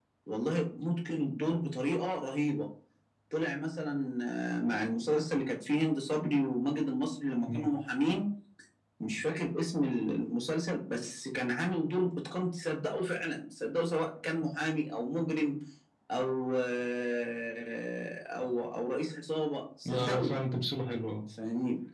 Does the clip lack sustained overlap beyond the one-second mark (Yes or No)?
Yes